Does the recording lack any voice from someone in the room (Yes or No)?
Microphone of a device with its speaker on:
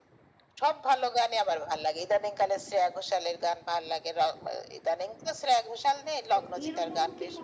No